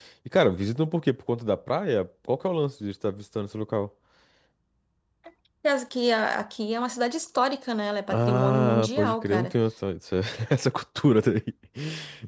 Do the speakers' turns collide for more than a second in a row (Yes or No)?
Yes